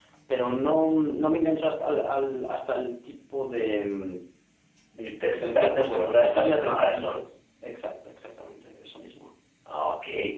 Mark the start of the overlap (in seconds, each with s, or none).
5.3 s